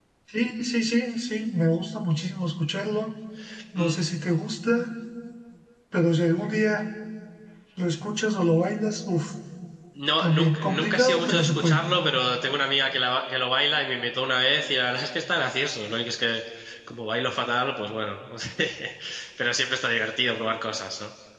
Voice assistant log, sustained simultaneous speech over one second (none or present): present